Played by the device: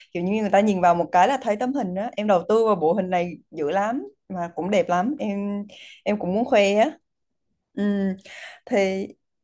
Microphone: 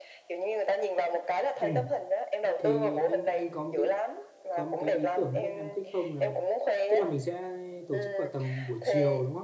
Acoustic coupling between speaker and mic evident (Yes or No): Yes